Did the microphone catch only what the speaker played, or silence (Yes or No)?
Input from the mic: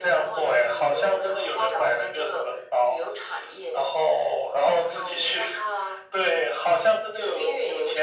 Yes